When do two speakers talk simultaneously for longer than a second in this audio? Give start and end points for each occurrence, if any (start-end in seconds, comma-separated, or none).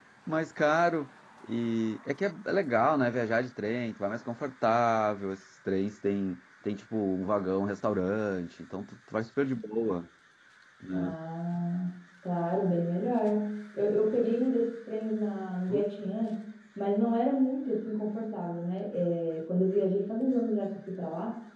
none